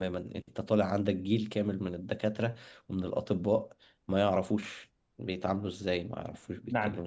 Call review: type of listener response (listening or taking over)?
taking over